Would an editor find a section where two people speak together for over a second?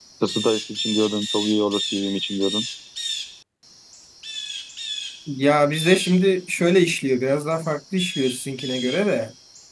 No

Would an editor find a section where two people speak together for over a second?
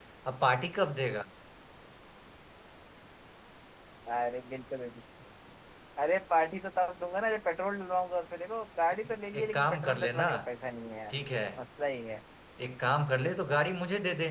Yes, from 9.0 s

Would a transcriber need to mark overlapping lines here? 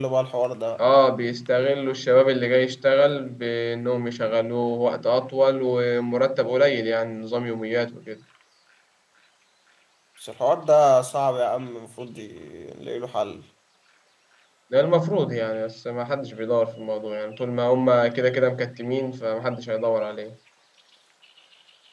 No

